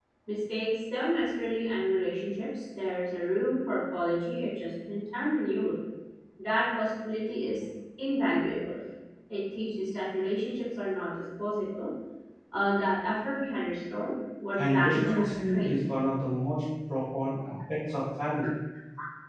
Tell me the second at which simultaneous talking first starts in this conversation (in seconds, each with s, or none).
14.6 s